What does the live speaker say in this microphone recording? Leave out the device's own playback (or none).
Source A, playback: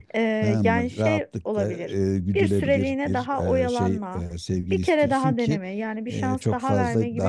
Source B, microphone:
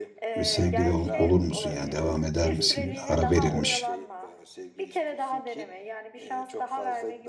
sevgili ol- olur musun? Yani devam eder misin? Ara verilmiş